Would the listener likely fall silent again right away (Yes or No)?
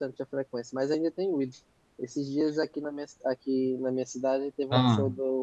Yes